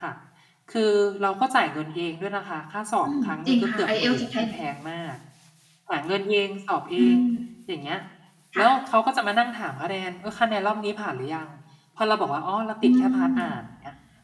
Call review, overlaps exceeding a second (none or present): present